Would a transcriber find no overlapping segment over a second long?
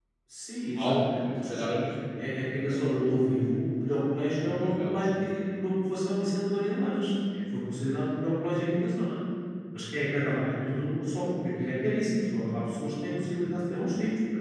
No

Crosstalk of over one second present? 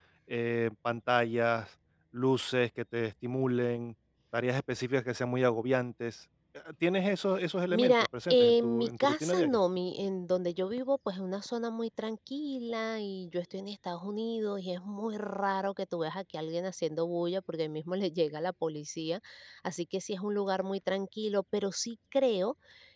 Yes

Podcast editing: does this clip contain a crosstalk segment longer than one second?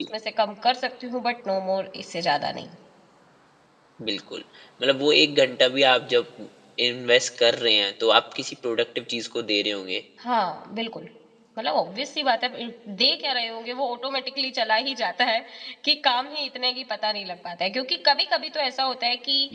No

